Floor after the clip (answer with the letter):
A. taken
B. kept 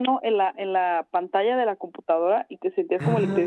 A